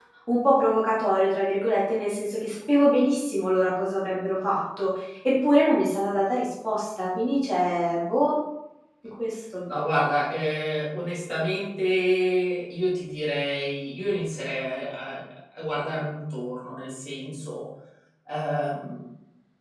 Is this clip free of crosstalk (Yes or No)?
Yes